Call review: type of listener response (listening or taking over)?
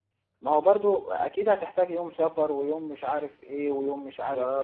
taking over